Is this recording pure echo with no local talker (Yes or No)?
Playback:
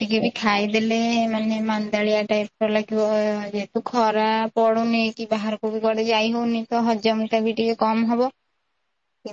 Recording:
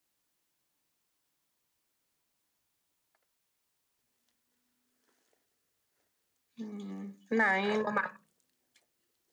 No